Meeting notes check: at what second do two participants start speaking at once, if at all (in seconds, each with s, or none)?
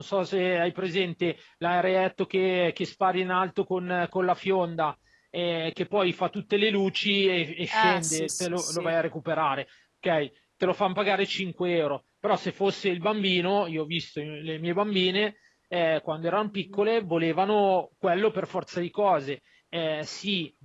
7.7 s